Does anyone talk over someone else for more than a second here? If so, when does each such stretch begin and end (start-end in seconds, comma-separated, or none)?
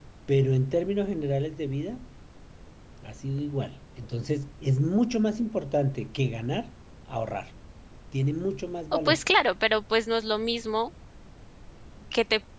none